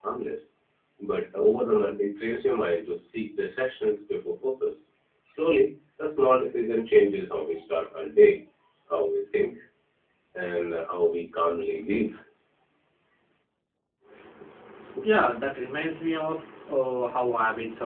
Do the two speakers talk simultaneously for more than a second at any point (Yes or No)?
No